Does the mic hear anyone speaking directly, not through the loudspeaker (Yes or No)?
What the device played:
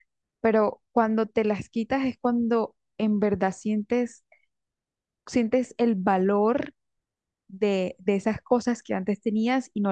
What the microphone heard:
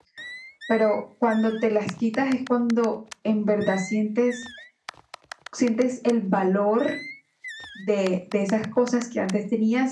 No